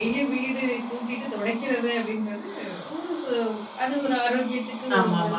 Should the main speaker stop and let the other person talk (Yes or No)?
Yes